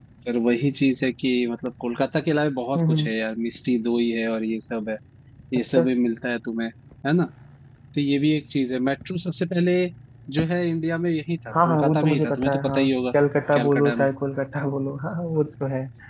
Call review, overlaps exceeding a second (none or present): present